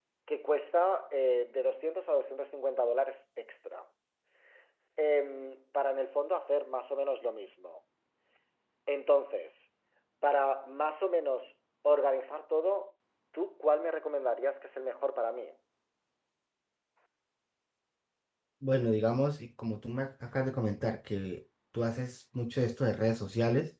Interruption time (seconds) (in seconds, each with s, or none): none